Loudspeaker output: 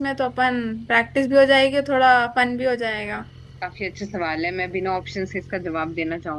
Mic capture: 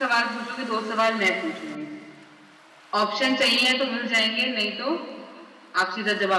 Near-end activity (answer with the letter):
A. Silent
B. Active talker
B